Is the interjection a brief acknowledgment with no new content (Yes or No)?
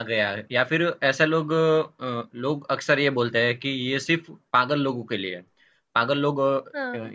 Yes